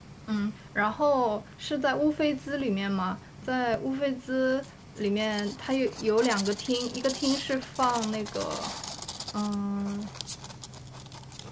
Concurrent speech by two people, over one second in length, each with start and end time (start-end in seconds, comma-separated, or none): none